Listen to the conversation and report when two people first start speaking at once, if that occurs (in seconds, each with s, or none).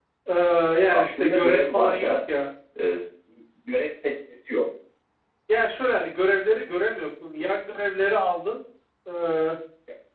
0.9 s